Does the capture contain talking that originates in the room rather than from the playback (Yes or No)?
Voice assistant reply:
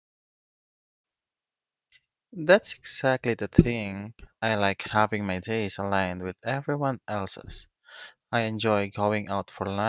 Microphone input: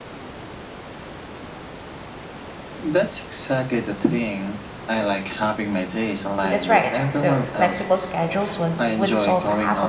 Yes